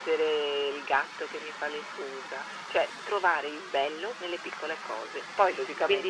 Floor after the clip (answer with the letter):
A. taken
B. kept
A